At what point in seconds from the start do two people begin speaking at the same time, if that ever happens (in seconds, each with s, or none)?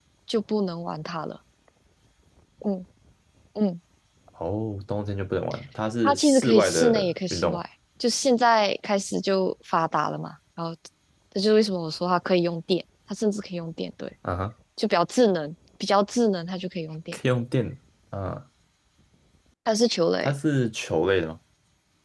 6.0 s